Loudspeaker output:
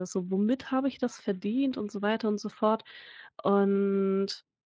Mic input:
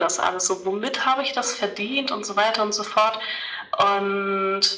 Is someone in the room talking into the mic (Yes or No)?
No